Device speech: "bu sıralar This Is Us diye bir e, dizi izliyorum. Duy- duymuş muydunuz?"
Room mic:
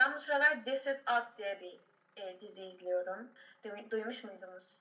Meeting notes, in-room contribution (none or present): none